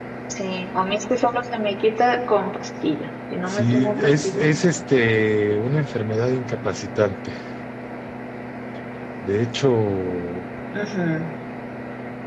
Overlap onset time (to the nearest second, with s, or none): 3 s